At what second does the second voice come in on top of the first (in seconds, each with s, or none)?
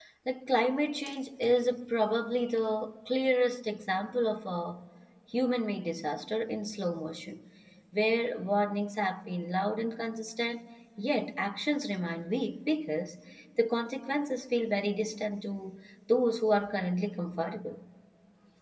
none